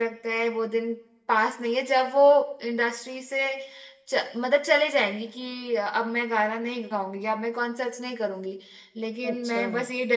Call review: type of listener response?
listening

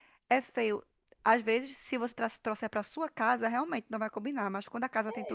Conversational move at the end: taking over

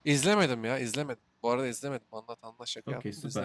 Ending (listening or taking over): taking over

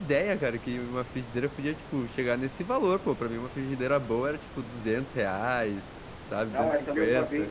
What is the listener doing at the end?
taking over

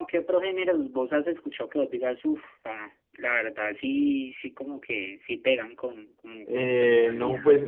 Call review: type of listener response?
taking over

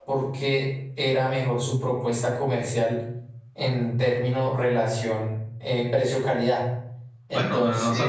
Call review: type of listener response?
taking over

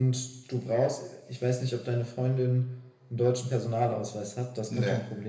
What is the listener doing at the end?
listening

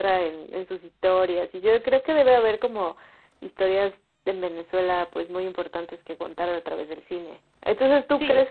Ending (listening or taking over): listening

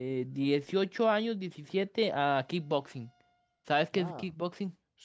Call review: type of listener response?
taking over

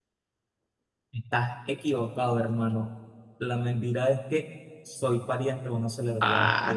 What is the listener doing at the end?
taking over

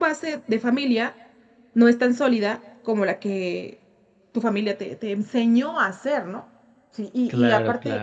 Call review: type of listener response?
listening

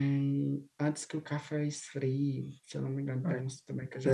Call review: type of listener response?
taking over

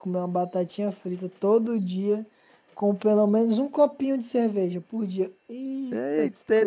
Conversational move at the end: taking over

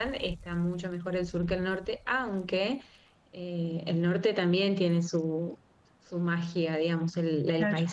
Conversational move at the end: listening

